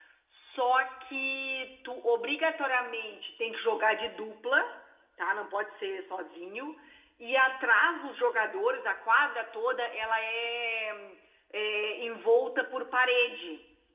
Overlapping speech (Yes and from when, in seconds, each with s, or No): No